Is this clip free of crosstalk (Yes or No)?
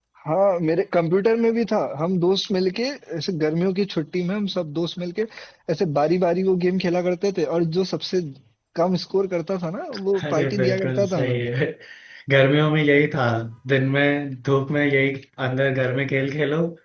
No